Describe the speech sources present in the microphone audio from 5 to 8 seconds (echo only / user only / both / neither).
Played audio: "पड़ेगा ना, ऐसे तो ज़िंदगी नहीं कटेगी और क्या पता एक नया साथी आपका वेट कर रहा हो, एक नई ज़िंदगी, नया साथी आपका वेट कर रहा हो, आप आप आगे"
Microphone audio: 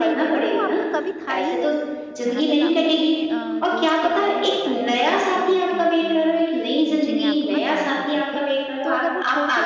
both